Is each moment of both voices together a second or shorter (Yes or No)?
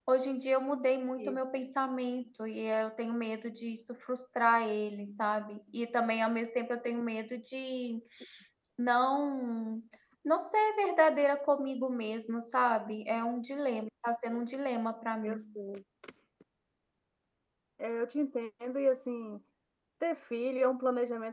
Yes